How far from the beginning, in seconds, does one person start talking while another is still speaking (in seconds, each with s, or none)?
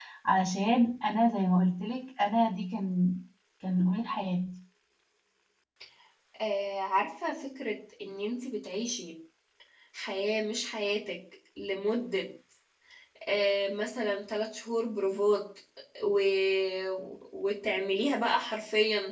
none